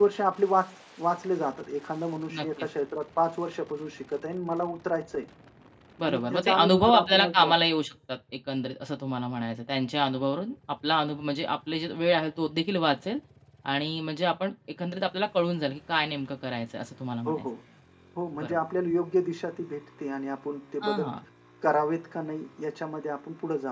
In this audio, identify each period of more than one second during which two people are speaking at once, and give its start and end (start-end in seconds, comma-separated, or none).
6.0-7.5